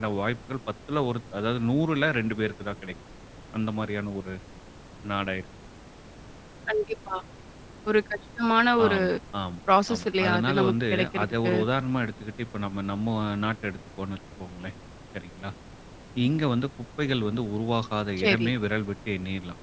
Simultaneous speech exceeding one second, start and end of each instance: 9.9-11.5

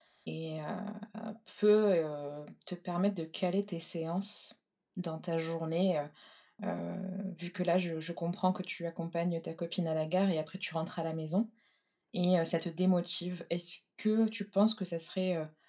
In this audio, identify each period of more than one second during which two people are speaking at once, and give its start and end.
none

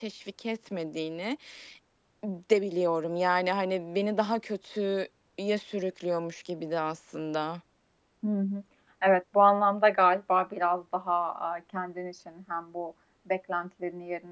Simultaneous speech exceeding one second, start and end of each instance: none

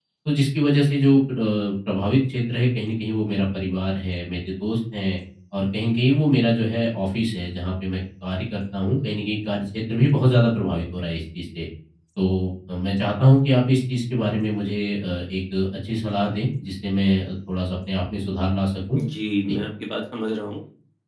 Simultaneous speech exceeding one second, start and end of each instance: none

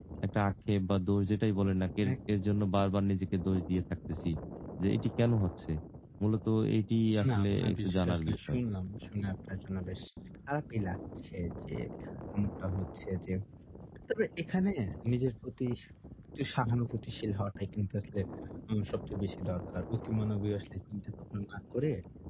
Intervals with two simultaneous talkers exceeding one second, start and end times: 7.3-8.6

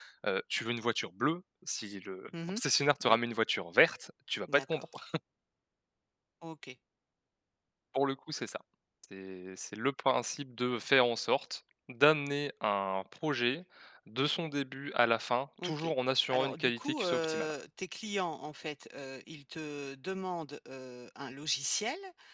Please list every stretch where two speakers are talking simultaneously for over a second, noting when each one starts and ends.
16.3-17.5

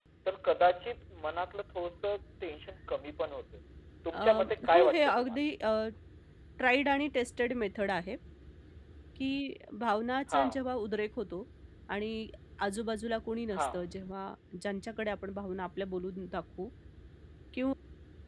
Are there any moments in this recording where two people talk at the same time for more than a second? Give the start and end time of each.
4.1-5.4

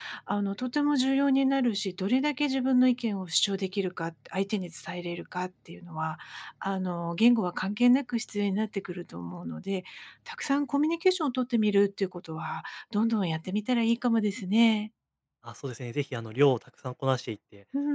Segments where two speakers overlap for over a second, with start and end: none

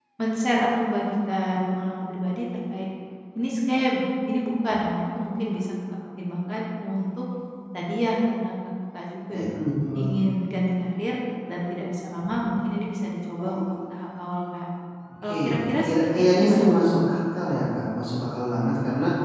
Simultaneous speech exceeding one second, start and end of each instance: 15.3-16.7

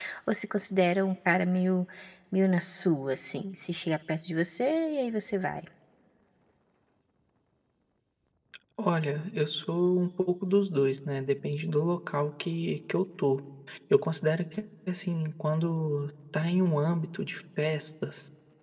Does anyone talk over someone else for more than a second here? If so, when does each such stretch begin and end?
none

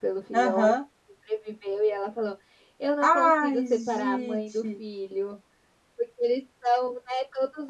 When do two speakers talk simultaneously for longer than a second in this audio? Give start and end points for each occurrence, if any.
3.0-4.7

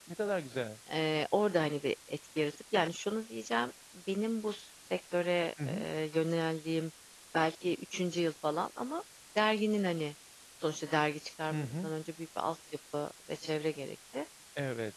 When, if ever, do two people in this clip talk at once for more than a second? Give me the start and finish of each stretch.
none

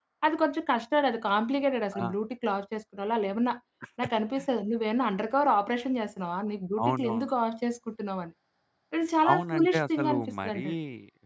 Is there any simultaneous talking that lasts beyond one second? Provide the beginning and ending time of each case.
9.3-10.6

